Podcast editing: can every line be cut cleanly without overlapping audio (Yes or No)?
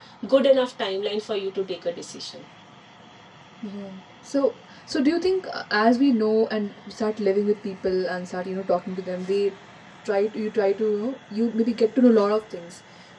Yes